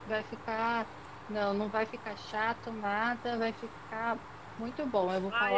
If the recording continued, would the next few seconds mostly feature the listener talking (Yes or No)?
Yes